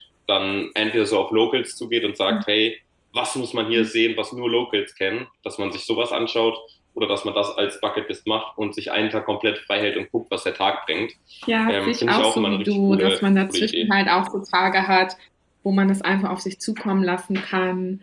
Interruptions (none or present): present